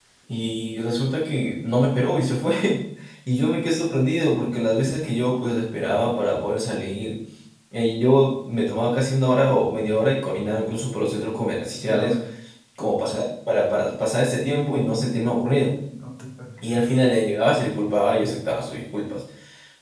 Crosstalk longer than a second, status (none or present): none